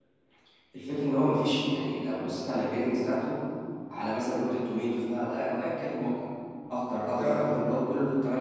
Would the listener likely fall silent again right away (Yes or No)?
Yes